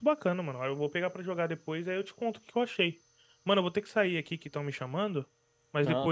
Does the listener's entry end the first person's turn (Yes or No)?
No